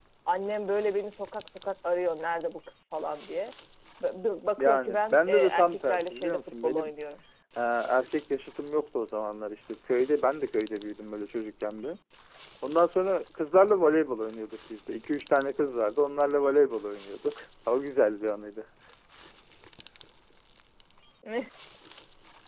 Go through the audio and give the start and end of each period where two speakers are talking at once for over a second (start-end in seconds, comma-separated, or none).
4.6-6.8